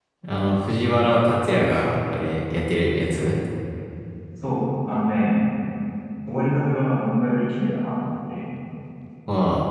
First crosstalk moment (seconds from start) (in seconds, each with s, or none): none